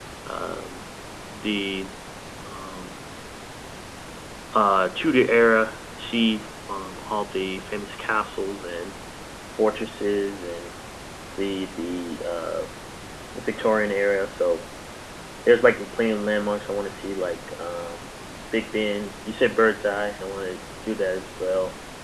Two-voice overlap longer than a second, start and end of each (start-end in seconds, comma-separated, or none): none